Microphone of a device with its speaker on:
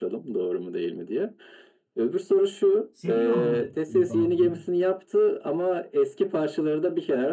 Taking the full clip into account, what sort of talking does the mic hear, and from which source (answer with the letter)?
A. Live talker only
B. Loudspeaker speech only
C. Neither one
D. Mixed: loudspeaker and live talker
D